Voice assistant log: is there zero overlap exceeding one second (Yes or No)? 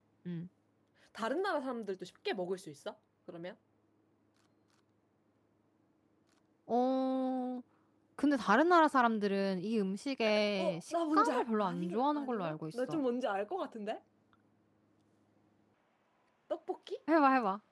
No